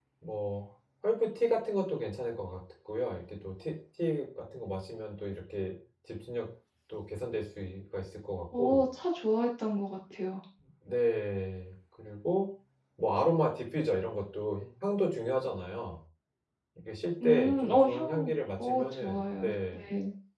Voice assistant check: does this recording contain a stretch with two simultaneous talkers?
Yes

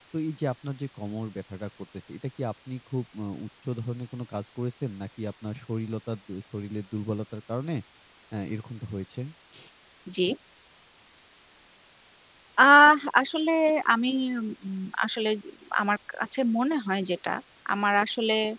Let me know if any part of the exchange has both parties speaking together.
No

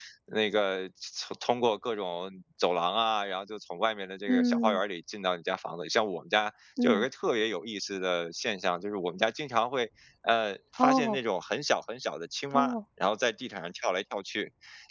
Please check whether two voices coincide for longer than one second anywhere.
No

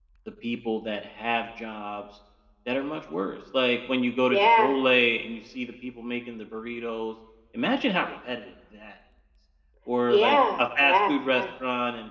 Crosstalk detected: Yes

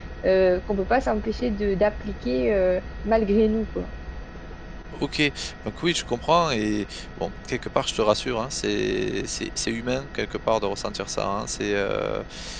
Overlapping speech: No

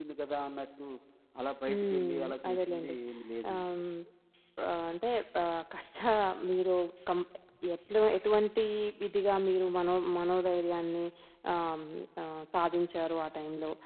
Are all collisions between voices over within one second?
No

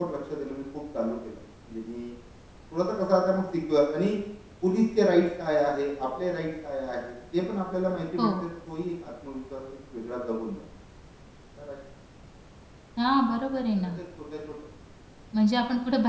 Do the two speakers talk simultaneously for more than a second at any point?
No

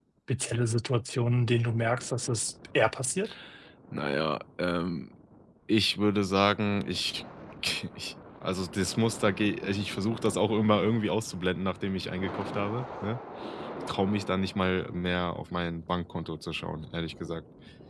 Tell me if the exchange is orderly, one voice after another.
Yes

